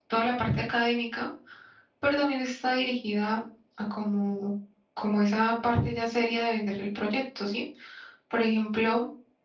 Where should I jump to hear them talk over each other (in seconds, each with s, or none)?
none